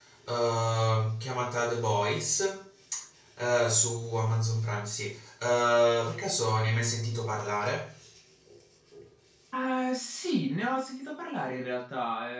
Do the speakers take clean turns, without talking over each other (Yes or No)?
Yes